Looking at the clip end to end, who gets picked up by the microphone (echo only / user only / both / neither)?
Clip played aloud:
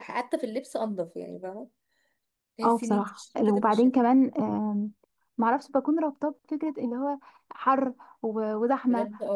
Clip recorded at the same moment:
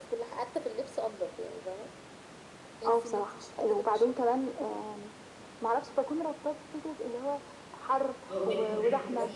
both